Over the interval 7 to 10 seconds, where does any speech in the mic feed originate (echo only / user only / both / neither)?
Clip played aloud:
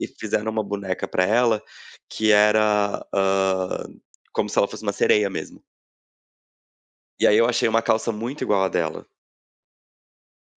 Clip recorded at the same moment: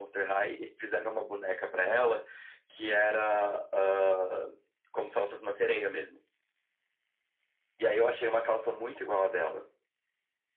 echo only